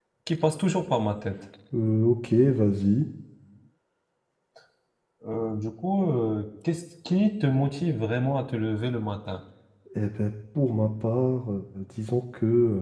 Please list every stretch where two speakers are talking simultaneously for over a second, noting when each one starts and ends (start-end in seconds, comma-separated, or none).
none